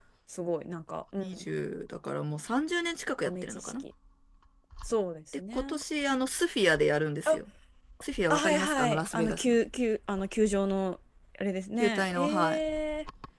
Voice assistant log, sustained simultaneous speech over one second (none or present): present